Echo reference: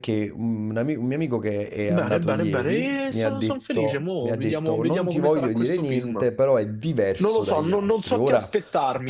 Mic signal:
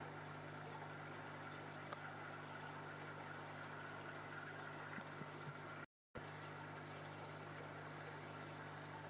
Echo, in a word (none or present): none